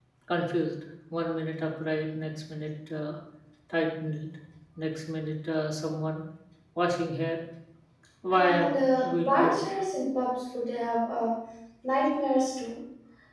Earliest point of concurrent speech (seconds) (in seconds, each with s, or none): 8.3 s